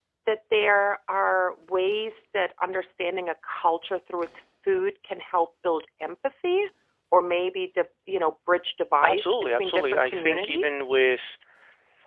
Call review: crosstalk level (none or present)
present